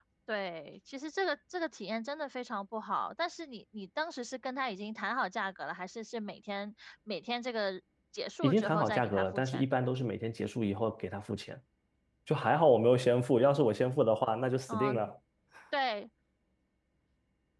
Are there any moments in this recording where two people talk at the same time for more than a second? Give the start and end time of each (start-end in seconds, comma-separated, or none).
8.4-9.8